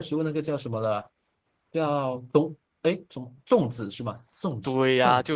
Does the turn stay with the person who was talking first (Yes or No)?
No